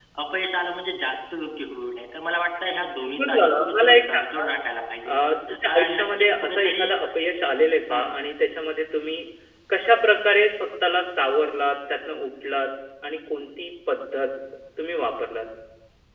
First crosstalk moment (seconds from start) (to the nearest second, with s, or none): 3 s